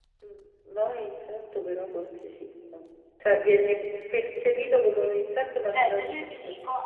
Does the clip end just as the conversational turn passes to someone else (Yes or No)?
Yes